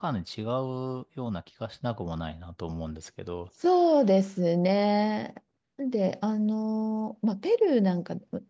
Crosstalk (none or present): none